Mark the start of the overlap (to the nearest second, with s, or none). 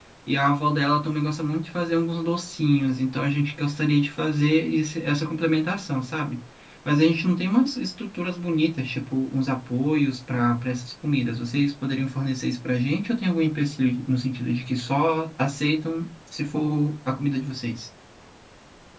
none